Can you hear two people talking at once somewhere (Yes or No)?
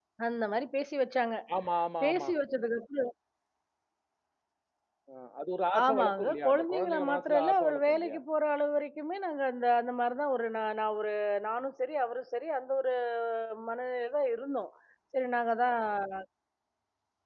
Yes